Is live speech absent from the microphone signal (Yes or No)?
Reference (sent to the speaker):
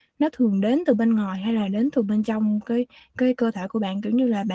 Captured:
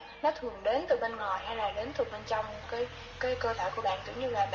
Yes